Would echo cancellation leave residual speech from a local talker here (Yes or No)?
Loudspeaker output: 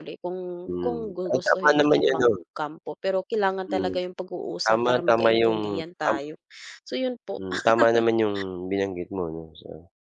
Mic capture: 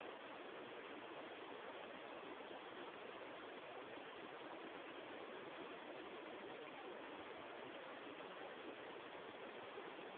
No